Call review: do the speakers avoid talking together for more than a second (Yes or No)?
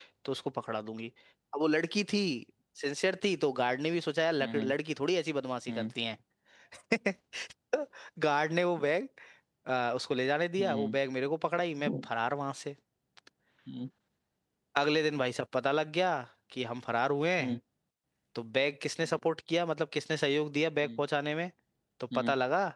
Yes